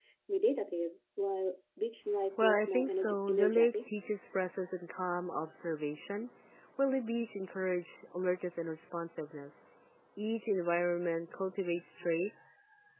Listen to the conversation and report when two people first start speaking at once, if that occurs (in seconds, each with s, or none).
2.4 s